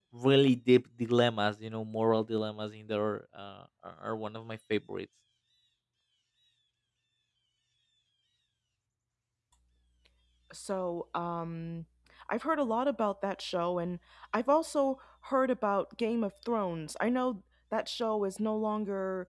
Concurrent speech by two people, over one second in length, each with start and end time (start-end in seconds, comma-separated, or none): none